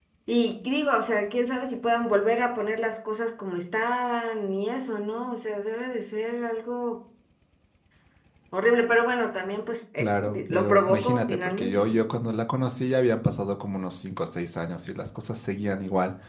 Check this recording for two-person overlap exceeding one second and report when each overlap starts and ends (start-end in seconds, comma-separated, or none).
10.0-12.0